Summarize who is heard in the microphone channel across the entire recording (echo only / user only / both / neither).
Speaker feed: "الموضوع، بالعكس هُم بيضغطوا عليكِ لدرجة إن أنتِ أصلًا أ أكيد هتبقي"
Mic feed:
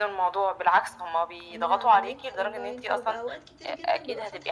both